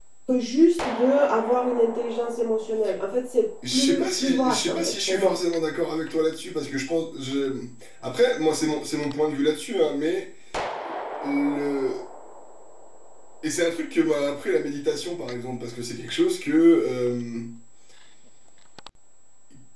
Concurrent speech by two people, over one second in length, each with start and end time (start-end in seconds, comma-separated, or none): 3.7-5.4